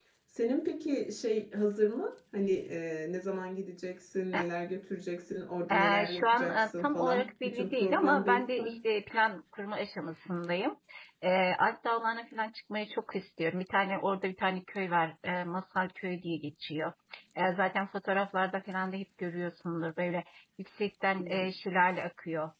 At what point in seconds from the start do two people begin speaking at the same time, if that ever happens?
5.7 s

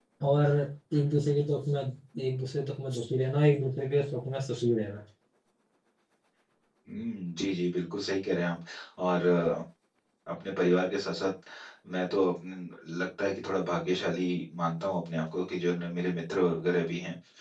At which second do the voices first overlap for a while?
none

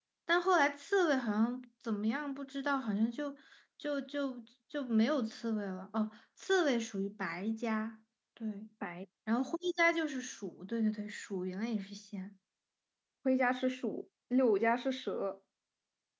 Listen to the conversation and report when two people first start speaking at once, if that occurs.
none

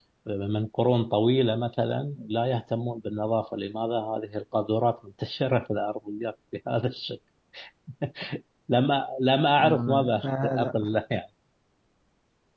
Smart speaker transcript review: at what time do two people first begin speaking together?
9.6 s

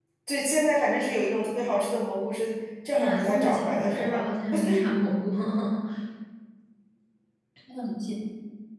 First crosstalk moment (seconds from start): 2.9 s

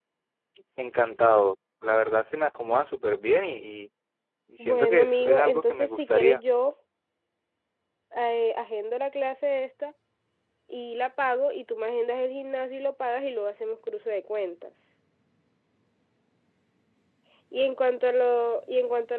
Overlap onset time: 4.6 s

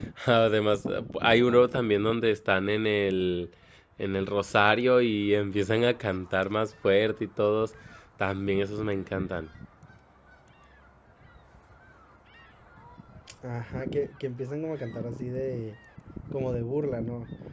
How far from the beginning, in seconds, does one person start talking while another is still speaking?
none

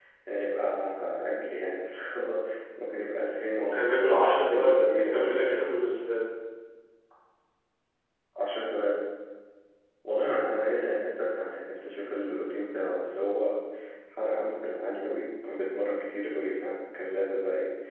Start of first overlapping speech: 3.6 s

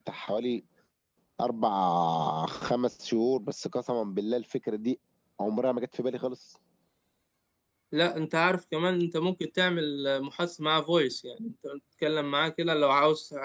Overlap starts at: none

